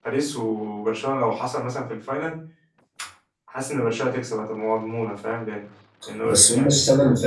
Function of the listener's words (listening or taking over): taking over